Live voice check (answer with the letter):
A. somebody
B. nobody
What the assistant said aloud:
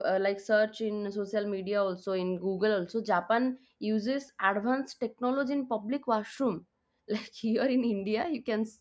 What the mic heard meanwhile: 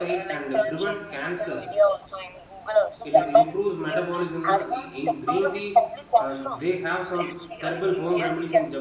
A